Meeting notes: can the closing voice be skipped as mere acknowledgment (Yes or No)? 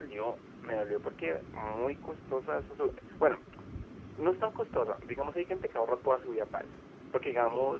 Yes